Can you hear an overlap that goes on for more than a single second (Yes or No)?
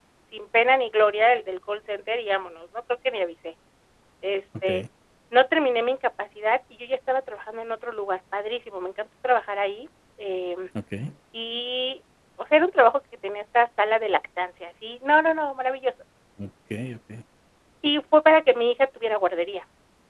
No